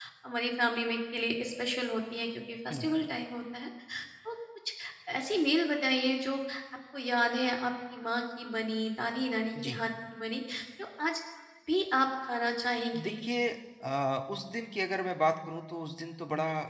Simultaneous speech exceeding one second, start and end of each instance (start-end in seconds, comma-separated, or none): none